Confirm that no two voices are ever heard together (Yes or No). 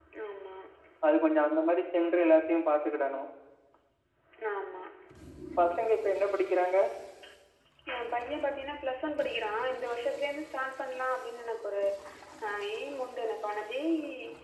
Yes